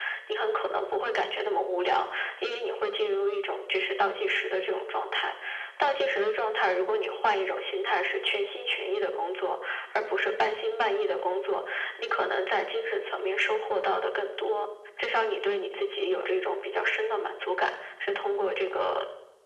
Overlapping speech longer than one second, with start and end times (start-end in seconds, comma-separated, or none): none